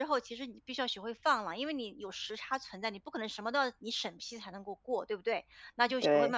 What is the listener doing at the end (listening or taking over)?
listening